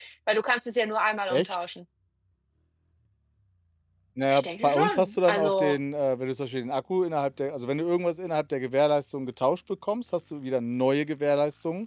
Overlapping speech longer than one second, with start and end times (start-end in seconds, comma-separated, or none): 4.3-5.8